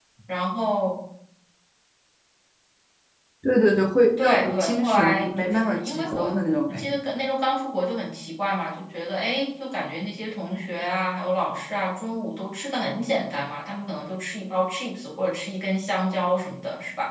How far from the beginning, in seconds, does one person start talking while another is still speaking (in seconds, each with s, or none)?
4.2 s